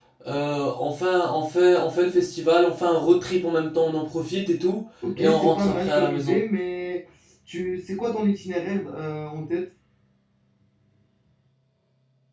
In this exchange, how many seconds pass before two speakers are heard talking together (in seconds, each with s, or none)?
5.0 s